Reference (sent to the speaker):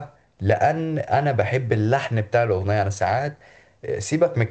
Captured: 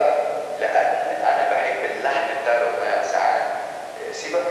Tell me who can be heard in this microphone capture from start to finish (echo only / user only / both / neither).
echo only